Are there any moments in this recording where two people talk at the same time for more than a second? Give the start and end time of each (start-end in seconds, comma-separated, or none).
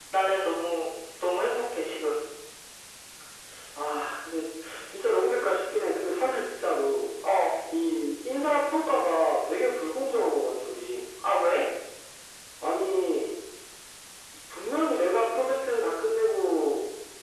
none